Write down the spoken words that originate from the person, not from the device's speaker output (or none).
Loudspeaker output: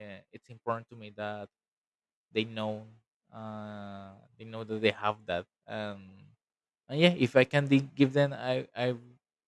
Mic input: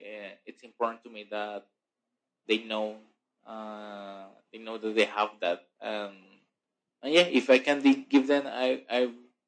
none